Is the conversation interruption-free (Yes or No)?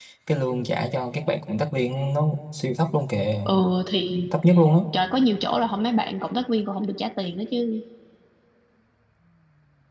Yes